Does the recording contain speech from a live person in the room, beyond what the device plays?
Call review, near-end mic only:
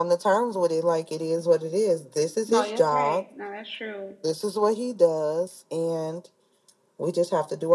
Yes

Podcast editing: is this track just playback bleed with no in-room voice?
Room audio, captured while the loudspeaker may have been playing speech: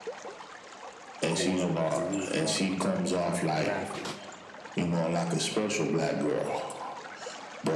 No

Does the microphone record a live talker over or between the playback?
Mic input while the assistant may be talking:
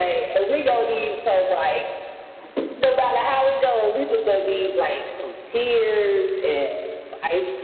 No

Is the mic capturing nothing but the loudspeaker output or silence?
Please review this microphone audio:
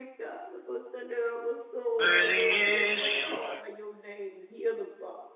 No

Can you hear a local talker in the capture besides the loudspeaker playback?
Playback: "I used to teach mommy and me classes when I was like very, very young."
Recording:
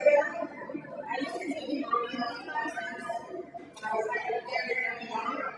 No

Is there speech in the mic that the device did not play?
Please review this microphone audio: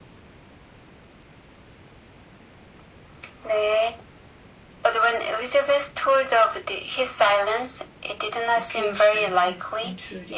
Yes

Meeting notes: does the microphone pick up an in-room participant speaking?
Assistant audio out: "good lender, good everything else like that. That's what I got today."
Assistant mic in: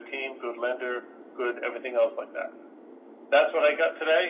No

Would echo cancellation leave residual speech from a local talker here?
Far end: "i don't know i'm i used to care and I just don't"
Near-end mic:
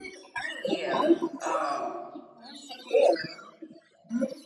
Yes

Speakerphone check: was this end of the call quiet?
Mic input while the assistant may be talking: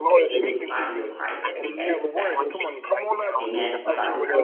No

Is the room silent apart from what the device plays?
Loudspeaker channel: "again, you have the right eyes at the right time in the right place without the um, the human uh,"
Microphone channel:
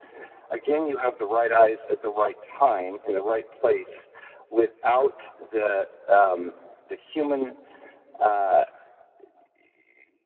Yes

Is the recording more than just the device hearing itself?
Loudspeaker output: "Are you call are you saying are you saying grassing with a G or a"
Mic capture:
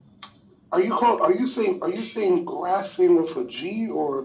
No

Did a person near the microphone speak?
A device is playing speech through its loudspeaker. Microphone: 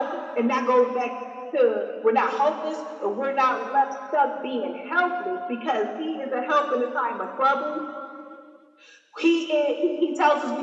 No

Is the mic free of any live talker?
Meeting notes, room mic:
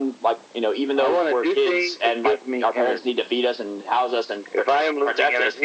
Yes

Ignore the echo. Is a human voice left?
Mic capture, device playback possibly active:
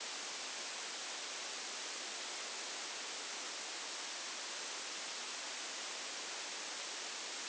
No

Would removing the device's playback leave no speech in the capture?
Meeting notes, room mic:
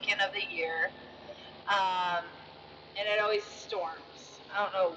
Yes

